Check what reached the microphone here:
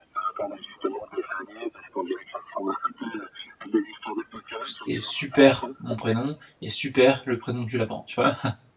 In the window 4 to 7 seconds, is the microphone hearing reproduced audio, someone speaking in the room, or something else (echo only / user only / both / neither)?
both